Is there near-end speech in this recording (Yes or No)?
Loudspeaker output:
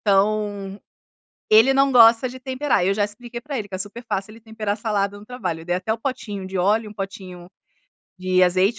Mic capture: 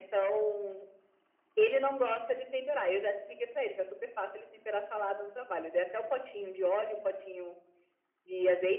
No